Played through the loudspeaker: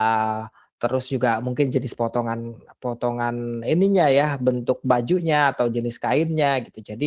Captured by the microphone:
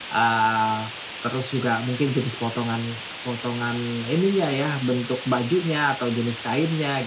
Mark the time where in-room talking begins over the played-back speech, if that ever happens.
none

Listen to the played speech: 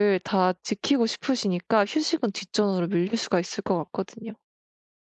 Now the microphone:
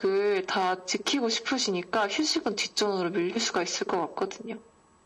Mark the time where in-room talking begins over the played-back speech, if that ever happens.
none

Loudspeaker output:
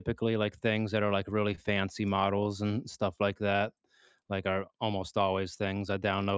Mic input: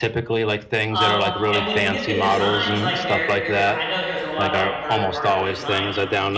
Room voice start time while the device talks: 0.9 s

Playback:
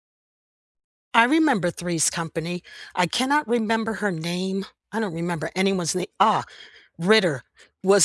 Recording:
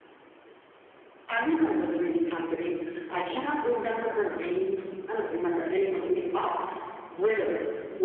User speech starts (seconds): none

